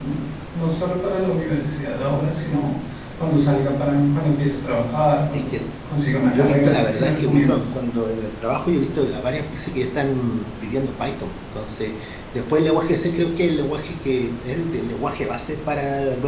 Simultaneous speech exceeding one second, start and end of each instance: 6.2-7.6

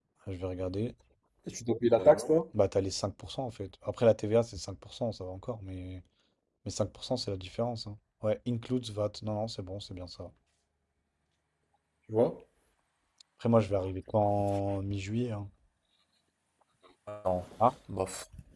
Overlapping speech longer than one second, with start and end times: none

